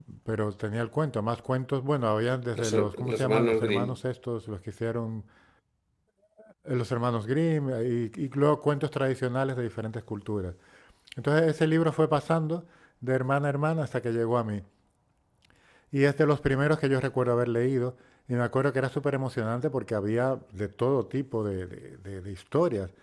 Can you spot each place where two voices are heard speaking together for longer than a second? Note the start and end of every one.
2.6-4.0

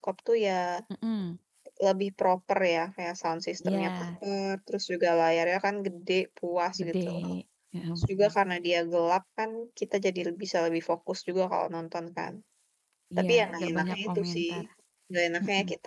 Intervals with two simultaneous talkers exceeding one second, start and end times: 13.2-14.5

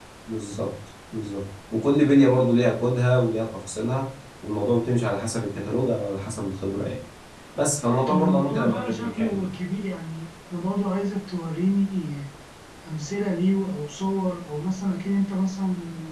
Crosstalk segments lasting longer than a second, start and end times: 7.8-9.4

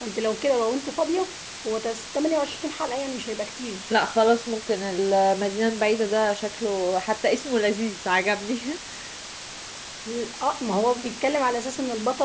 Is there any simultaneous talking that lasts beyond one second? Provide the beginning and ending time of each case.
none

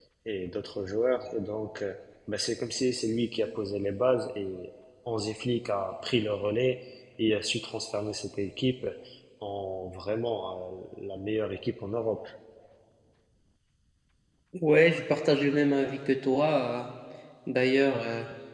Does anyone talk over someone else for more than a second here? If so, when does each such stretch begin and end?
none

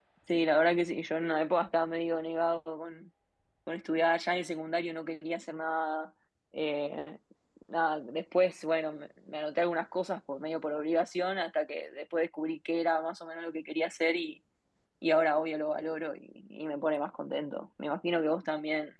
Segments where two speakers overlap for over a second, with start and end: none

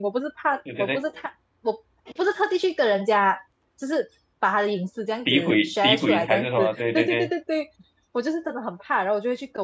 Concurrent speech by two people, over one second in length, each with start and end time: 5.3-7.3

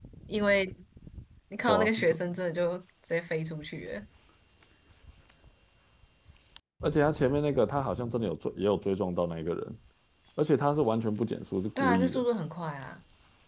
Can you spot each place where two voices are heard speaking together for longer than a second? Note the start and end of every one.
none

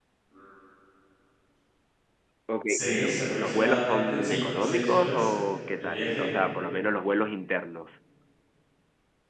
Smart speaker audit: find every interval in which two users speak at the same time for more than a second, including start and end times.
2.7-5.3

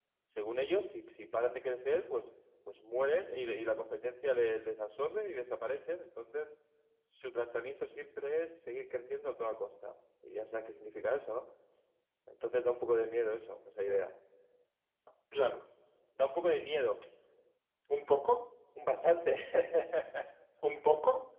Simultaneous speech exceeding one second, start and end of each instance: none

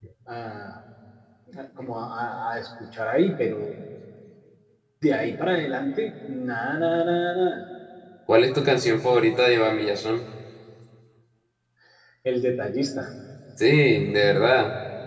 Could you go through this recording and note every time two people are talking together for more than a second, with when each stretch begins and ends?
none

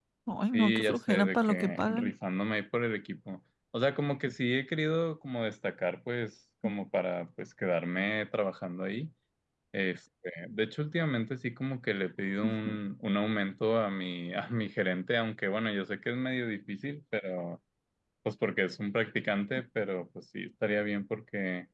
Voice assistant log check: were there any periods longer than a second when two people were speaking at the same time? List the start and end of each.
0.5-2.1

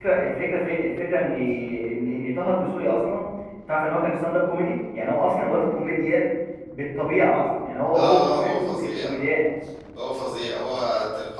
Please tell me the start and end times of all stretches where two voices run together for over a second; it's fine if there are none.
7.9-9.2

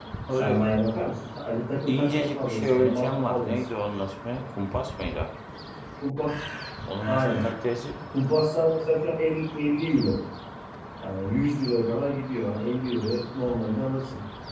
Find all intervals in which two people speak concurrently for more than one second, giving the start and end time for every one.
1.9-3.6

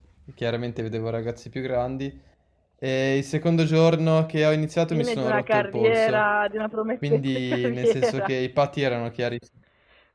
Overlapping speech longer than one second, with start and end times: 4.9-6.2, 7.1-8.3

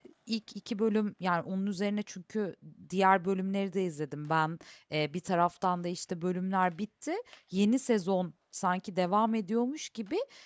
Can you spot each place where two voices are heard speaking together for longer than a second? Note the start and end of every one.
none

